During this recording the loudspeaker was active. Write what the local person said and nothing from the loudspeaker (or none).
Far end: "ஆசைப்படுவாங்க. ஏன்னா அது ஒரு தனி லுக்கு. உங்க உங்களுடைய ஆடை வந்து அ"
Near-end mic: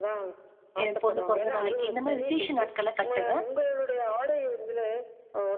என் பொண்ணு பொறந்த நாளைக்கு இந்த மாரி விசேஷ நாட்கள்ல கட்டுவேன்.